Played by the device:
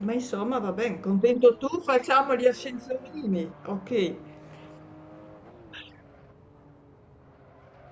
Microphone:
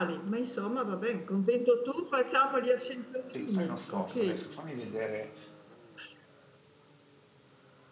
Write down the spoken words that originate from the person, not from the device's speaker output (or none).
Sì, fai uno sforzo adesso, fammi vedere